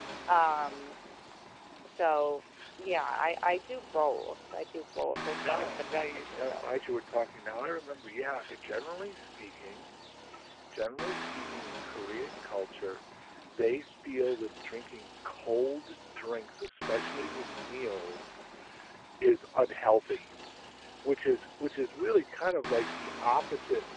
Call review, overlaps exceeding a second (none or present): present